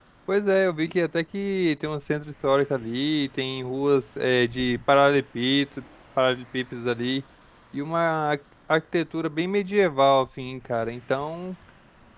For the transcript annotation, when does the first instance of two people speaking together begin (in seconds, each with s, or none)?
none